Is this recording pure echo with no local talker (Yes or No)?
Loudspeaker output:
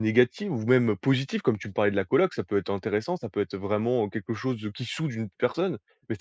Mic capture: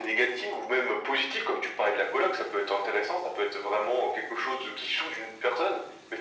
Yes